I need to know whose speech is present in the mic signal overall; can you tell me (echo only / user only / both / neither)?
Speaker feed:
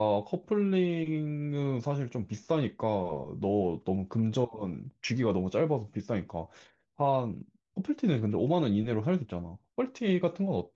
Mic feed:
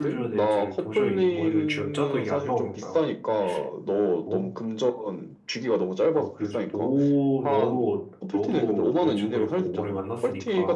both